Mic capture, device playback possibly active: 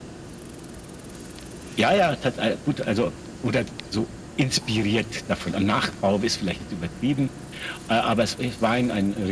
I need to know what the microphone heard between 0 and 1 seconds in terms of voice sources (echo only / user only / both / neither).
neither